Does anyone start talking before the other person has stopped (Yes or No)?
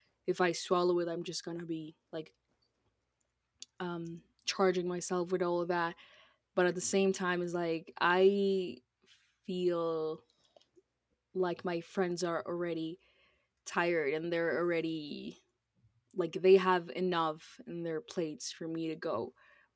No